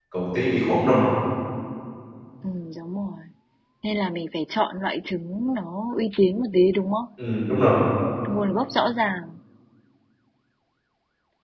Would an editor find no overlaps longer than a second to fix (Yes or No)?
Yes